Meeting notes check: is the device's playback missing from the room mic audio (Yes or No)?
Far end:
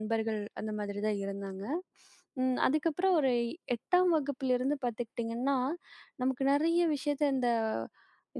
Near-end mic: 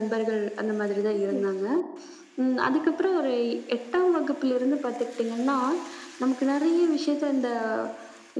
No